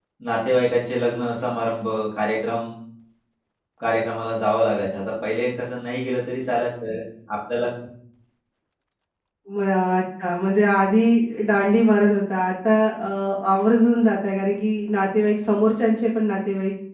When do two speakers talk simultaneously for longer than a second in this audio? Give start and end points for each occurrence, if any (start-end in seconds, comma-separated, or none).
none